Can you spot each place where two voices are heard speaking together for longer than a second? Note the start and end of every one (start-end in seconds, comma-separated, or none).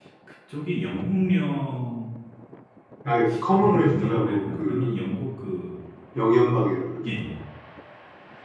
3.5-4.9